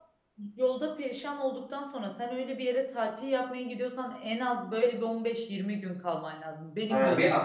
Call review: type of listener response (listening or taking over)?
taking over